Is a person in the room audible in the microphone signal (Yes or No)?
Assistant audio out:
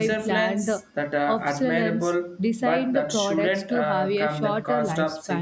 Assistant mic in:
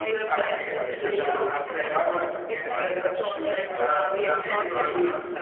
Yes